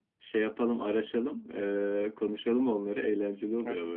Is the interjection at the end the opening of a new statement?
Yes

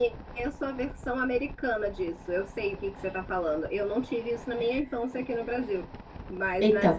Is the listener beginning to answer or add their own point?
No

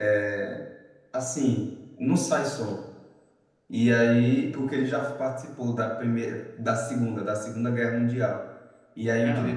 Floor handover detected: No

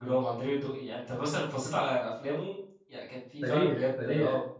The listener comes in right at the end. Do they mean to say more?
Yes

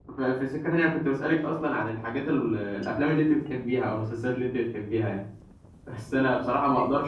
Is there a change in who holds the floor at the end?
No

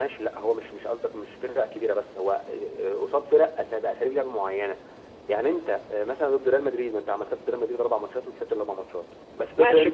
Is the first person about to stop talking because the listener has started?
Yes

